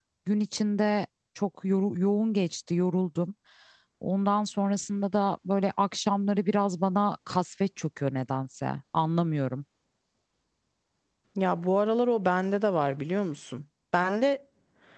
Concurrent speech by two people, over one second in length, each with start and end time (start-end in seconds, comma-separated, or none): none